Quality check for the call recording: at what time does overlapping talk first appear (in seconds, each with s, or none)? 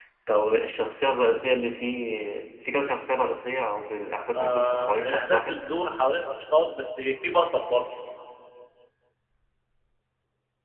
4.4 s